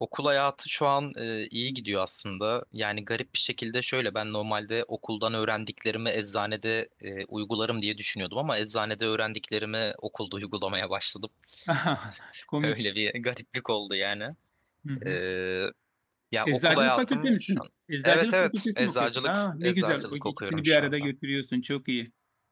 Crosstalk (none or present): present